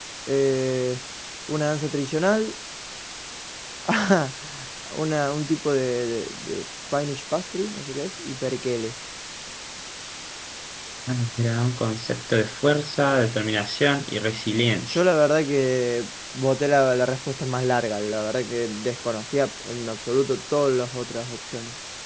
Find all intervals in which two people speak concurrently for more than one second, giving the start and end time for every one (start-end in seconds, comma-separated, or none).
none